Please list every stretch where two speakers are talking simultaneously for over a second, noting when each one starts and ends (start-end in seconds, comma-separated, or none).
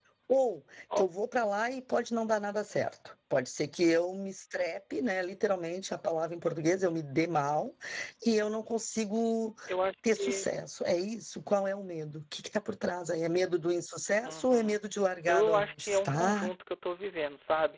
15.3-16.5